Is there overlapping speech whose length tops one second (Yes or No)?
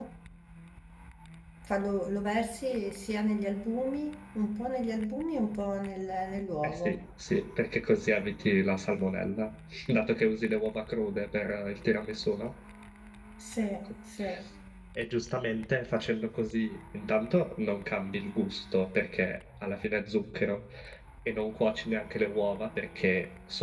No